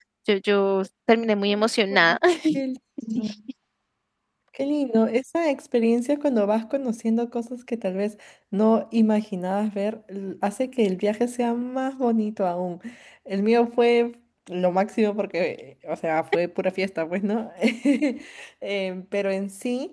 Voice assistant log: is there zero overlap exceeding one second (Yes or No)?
Yes